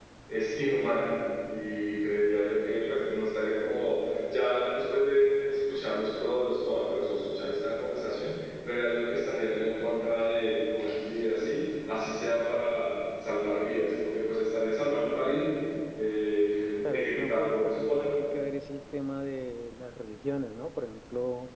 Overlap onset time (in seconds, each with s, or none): 16.8 s